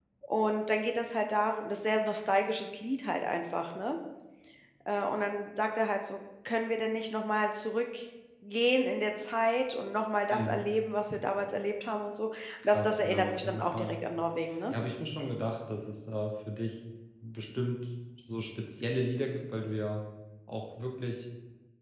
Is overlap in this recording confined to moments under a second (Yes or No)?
No